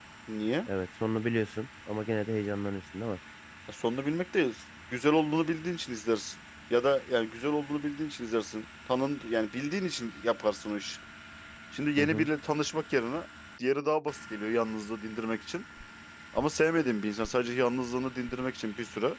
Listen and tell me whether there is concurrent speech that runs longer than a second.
No

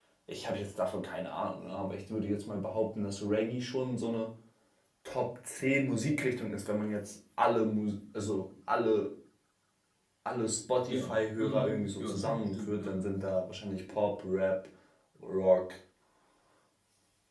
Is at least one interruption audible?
Yes, from 10.9 s

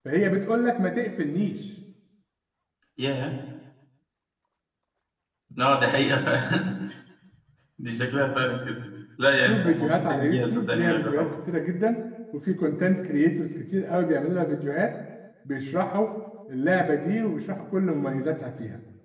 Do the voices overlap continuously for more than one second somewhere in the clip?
Yes, from 9.5 s

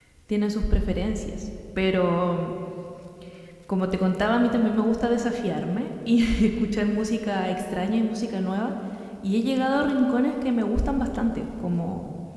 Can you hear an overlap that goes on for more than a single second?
No

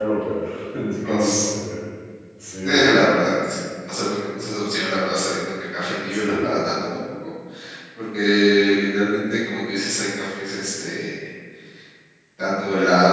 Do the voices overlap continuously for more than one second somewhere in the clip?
No

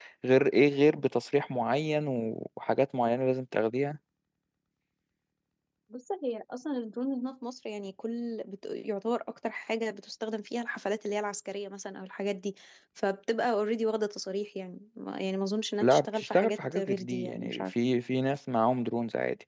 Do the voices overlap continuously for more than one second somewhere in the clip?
Yes, from 15.8 s

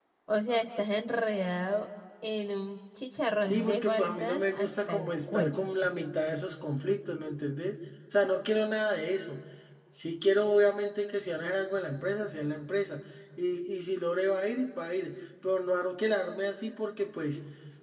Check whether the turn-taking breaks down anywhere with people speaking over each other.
Yes, from 3.4 s

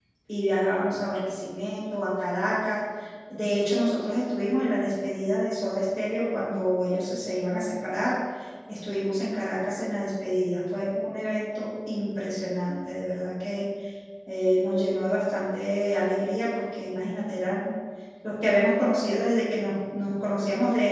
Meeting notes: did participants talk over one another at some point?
No

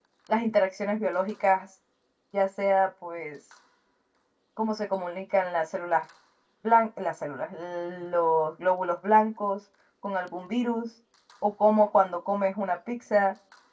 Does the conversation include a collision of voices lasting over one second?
No

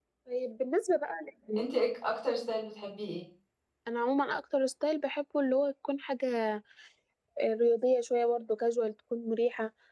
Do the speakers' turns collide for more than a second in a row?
No

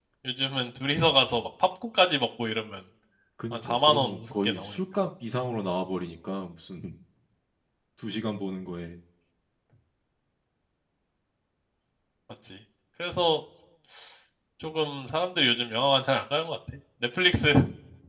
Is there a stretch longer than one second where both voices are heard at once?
Yes, from 3.5 s

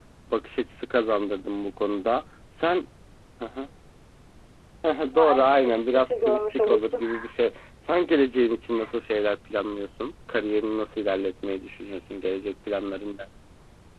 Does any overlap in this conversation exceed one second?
Yes, from 5.1 s

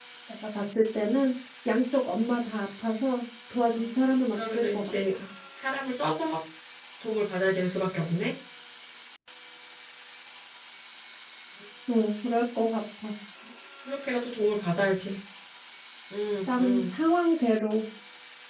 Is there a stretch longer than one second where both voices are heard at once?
Yes, from 3.7 s

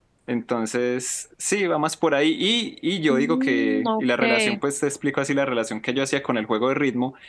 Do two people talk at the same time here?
Yes, from 3.1 s

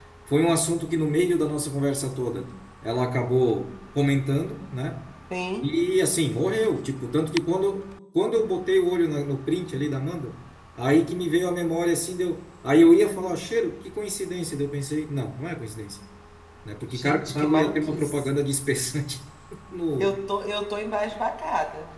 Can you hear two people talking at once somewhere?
Yes, from 16.9 s

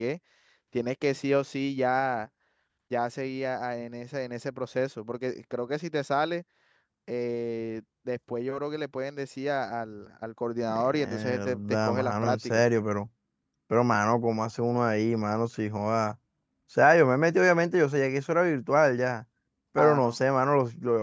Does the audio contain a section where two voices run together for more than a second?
Yes, from 10.7 s

